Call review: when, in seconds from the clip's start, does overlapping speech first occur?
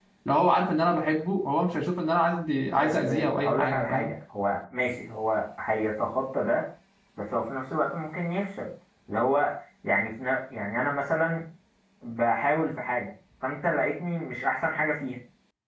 2.7 s

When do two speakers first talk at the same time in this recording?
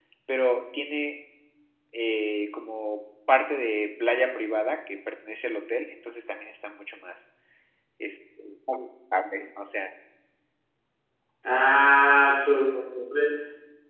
none

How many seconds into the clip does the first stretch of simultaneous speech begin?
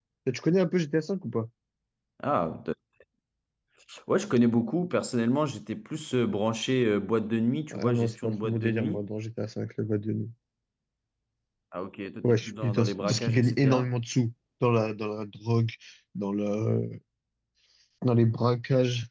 7.7 s

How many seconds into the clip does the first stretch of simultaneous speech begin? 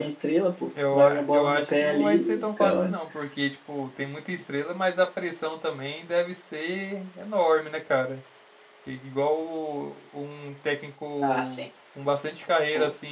0.9 s

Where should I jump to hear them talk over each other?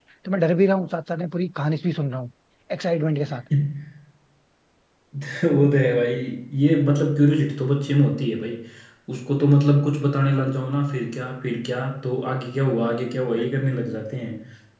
none

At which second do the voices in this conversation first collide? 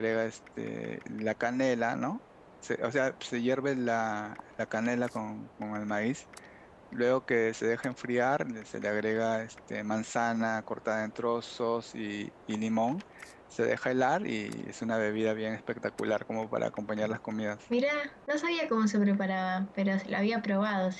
none

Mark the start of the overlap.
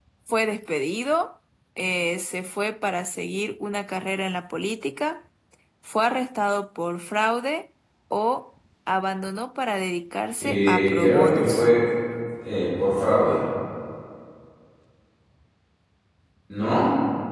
10.4 s

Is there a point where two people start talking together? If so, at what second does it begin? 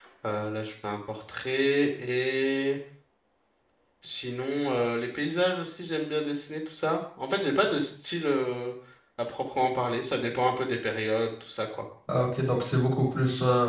none

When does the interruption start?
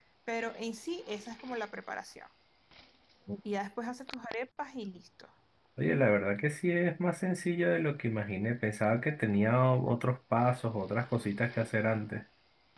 none

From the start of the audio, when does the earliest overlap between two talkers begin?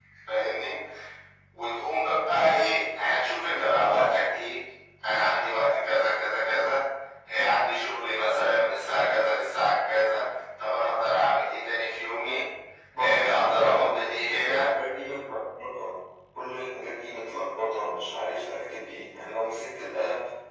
13.0 s

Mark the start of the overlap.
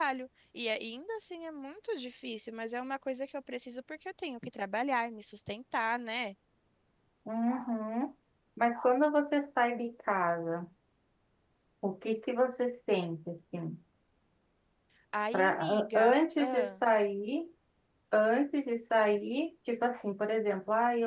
15.3 s

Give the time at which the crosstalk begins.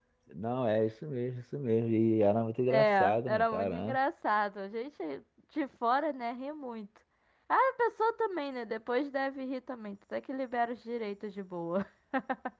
2.7 s

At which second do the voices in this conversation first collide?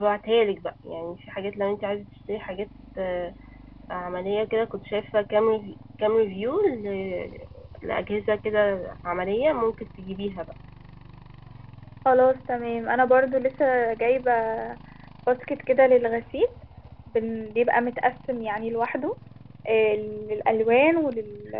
none

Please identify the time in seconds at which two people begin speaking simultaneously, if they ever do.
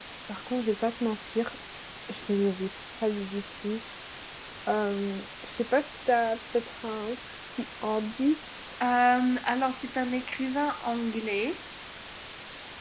none

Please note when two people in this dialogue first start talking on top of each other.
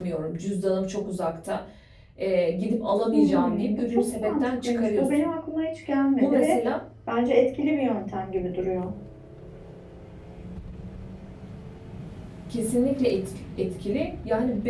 3.1 s

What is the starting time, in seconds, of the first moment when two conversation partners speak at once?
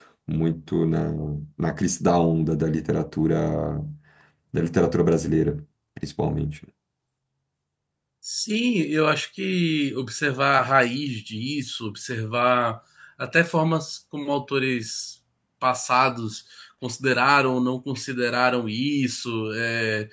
none

